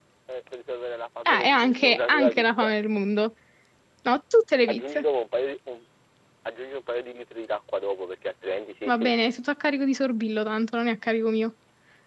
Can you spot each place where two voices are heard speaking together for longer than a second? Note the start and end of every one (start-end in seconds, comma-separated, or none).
1.3-2.7